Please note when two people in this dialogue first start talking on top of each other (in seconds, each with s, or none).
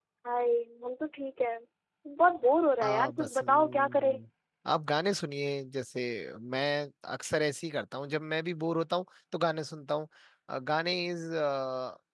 2.8 s